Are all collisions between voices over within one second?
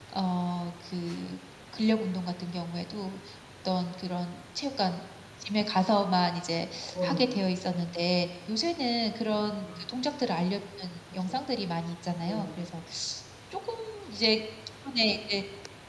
Yes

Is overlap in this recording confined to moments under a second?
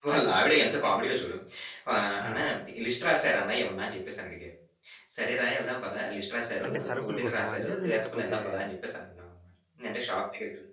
No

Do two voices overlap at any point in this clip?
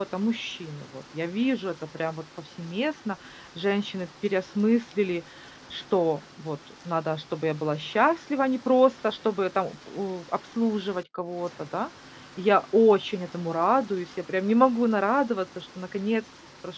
No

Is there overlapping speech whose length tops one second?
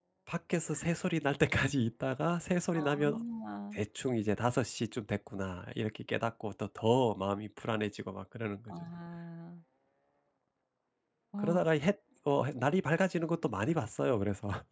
No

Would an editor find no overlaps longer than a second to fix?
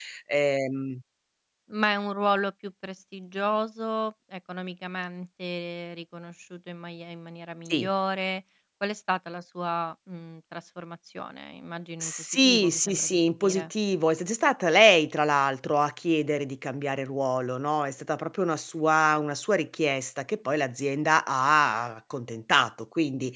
No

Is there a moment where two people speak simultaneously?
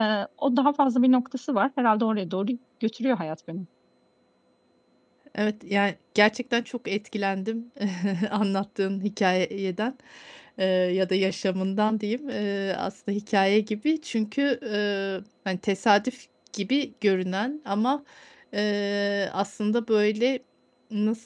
No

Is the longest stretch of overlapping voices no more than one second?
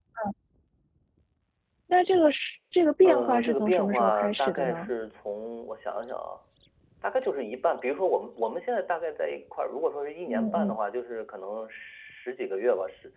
No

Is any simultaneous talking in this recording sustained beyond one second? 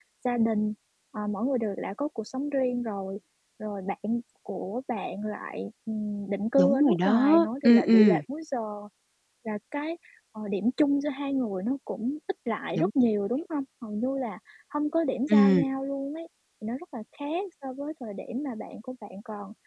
Yes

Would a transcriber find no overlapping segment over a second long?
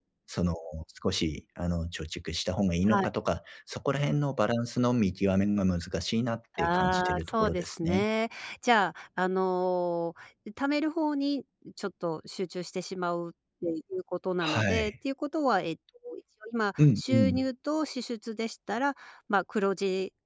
No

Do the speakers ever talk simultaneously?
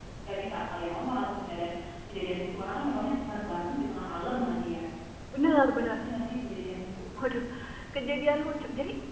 No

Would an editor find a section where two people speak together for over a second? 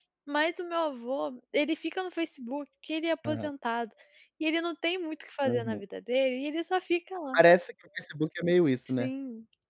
No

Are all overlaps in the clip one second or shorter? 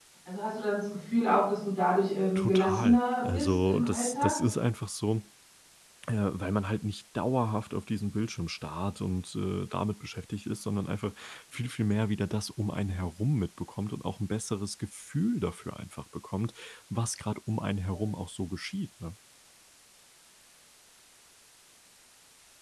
No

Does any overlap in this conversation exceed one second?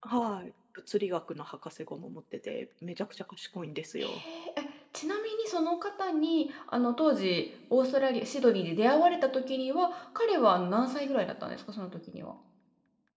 No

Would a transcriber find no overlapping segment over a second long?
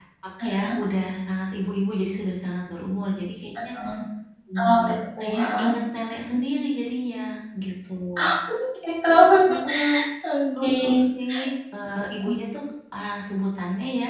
Yes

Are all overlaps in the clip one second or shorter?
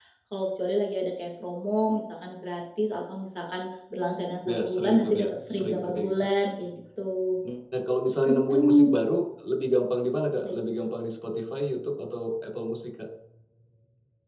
No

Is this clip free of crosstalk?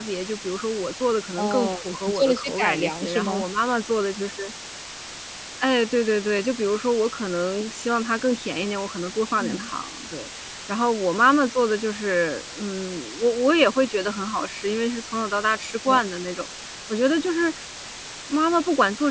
No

